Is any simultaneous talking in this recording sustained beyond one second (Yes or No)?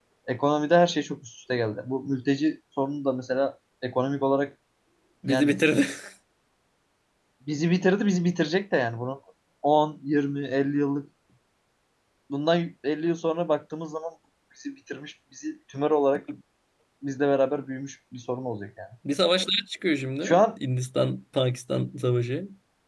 No